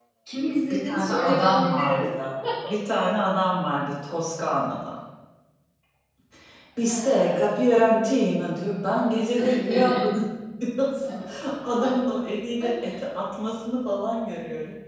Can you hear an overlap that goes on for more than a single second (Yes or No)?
Yes